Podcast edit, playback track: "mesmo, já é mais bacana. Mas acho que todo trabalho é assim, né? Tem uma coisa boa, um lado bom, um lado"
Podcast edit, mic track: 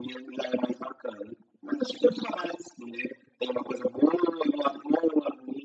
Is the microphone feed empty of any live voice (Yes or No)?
Yes